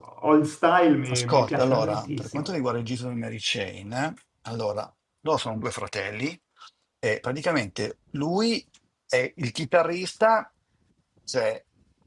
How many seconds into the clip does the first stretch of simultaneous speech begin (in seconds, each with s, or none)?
1.1 s